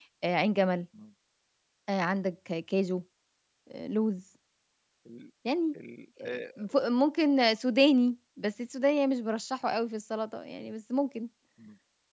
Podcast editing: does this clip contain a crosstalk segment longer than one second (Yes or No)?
No